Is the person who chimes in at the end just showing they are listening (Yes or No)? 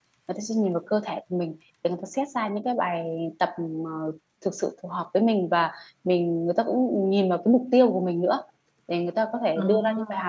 Yes